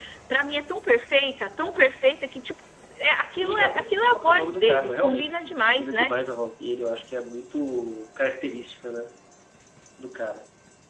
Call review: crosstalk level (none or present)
present